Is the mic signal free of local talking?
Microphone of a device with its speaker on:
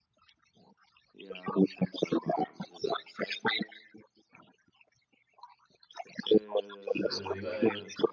No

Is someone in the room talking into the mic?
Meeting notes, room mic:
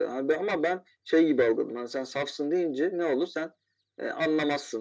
No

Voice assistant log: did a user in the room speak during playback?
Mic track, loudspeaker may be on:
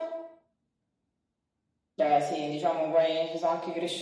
No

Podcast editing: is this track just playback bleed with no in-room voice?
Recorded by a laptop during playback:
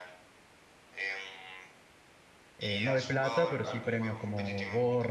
No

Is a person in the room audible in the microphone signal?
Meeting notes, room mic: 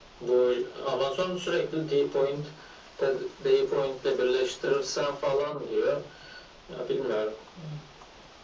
No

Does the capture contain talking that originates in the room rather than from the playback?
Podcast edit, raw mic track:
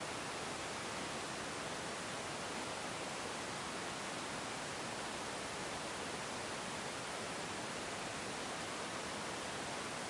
No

